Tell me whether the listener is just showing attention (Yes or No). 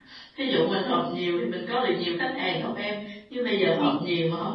Yes